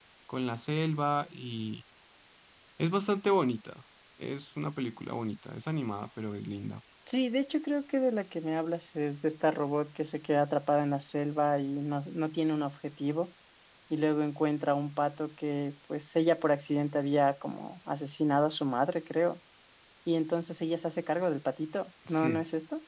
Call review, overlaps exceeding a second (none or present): none